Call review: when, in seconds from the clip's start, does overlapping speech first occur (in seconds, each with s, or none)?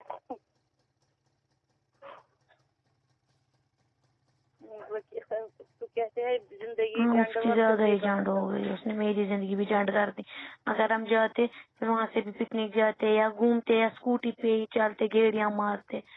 6.9 s